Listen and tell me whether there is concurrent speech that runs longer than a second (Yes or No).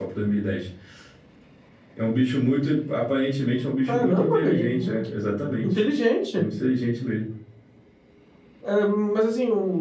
Yes